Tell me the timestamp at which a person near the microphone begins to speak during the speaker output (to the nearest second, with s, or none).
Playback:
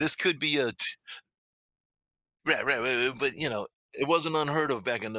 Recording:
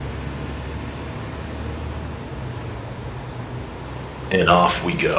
4 s